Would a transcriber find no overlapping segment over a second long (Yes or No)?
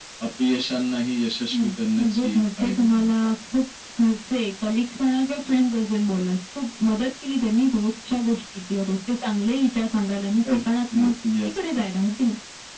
No